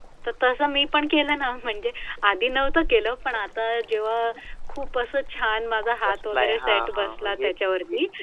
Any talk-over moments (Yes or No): Yes